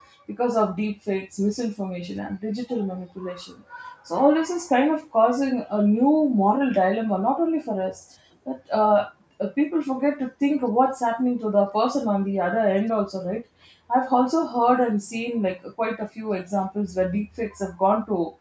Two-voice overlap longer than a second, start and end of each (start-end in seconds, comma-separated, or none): none